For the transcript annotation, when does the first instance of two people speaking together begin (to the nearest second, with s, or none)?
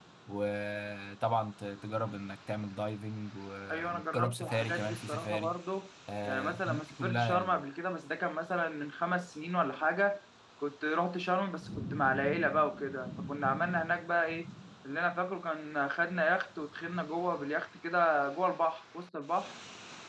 4 s